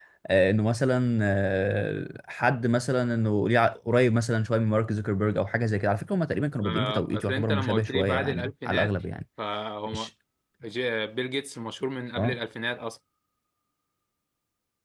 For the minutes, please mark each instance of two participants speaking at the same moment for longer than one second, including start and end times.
6.6-8.9

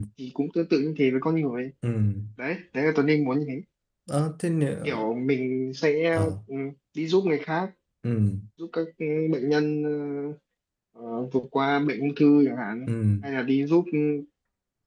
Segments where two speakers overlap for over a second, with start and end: none

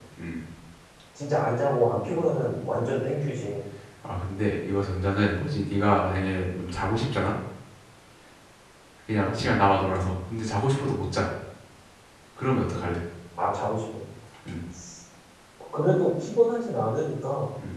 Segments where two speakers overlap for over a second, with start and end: none

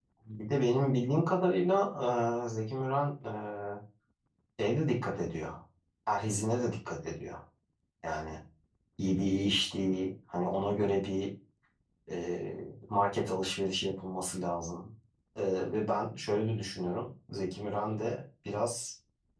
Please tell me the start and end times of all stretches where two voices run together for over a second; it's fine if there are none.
none

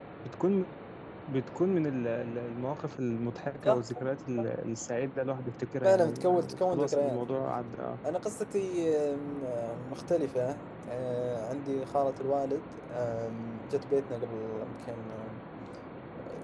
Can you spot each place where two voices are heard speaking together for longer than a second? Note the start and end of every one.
5.8-7.2

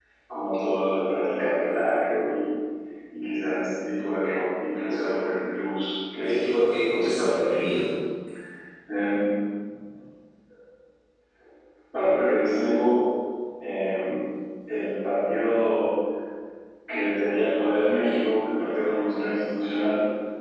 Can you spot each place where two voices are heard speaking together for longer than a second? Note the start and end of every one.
6.2-7.5

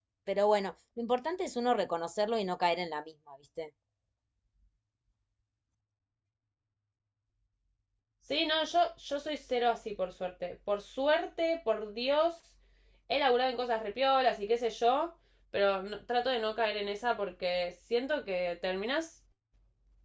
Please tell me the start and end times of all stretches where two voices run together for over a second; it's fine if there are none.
none

